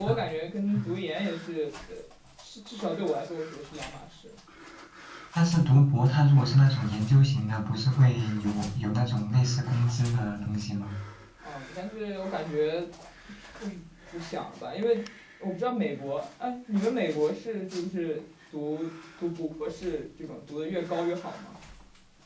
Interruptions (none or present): none